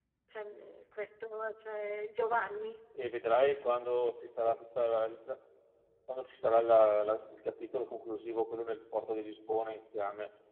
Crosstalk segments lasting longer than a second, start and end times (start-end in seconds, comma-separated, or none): none